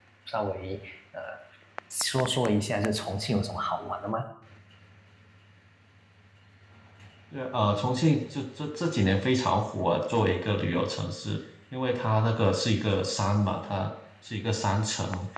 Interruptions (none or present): none